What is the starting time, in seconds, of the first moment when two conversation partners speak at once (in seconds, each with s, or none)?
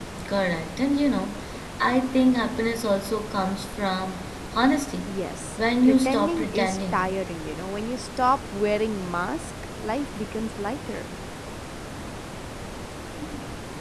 5.8 s